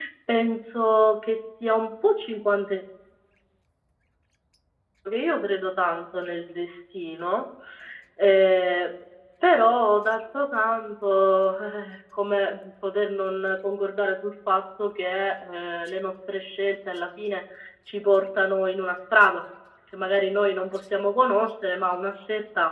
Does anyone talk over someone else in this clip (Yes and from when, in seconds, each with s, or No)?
No